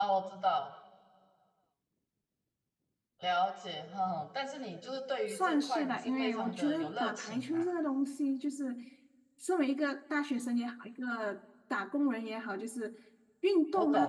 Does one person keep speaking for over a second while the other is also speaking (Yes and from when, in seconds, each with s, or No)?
Yes, from 5.3 s